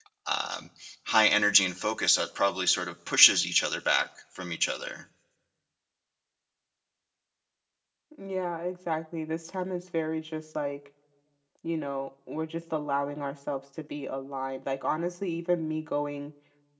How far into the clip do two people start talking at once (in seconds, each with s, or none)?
none